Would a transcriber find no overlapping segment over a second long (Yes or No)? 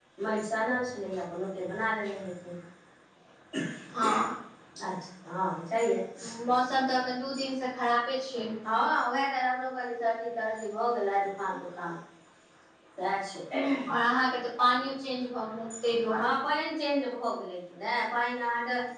Yes